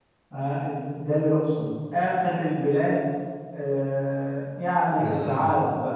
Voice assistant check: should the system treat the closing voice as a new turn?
No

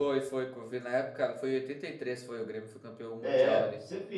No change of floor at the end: No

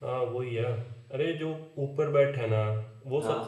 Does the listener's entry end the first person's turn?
No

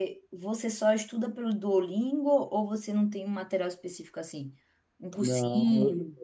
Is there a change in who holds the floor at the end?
Yes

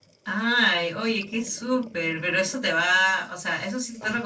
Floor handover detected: No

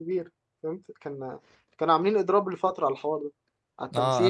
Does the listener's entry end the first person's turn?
Yes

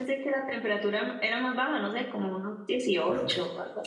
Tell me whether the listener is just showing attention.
No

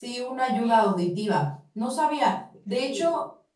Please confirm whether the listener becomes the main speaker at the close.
No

